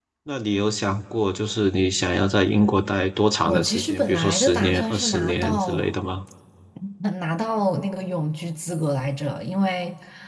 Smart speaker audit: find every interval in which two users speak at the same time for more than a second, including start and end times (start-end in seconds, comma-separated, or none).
3.5-5.9